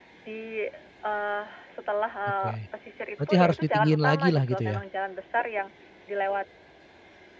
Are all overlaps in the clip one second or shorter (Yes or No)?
No